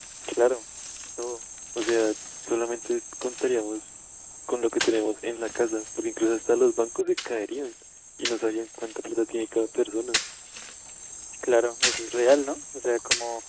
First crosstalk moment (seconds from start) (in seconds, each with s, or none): none